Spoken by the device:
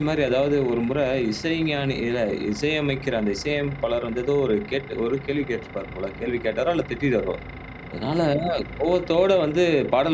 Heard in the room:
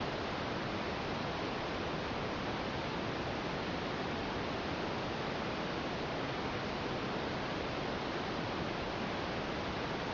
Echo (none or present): none